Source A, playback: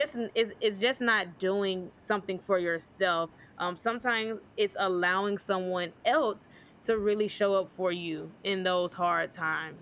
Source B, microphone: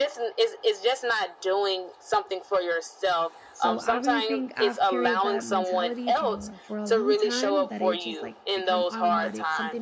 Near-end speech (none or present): present